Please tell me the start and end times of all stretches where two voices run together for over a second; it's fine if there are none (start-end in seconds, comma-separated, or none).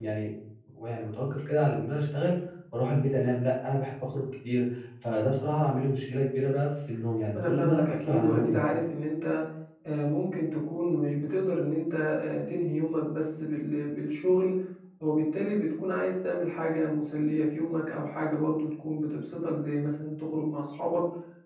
7.3-8.6